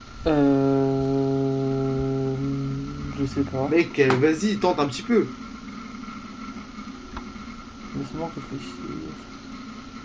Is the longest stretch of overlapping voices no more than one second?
Yes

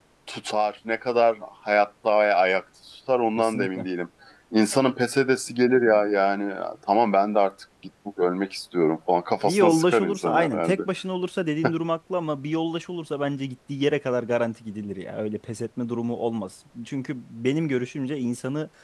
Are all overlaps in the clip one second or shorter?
No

